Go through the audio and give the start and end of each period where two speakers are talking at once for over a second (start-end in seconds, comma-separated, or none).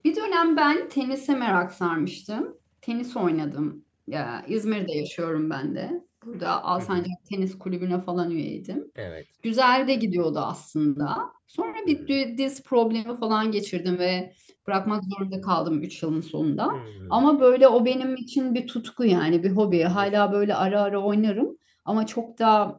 none